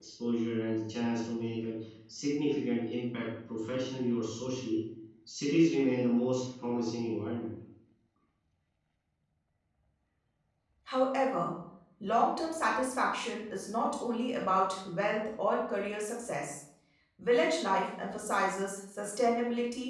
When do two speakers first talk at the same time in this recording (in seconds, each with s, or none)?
none